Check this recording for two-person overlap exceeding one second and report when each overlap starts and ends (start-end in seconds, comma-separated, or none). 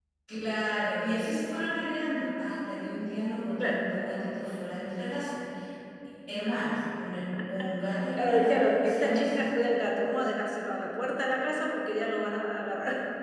8.2-9.5